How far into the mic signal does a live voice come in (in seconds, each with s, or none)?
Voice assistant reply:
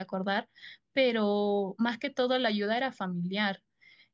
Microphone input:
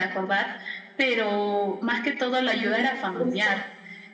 2.5 s